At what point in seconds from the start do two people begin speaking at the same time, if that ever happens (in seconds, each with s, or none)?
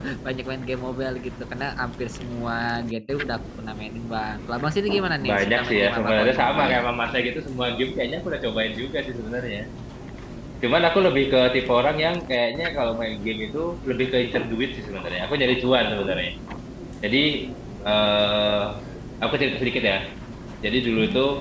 5.2 s